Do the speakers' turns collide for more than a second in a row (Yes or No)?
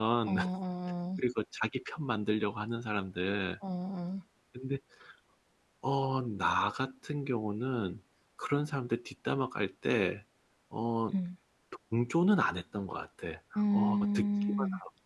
Yes